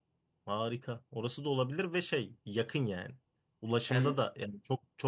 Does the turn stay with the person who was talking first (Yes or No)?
Yes